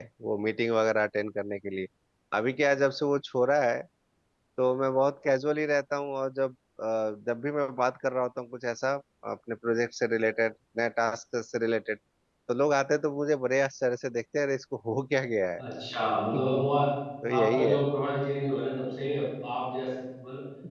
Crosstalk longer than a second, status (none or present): none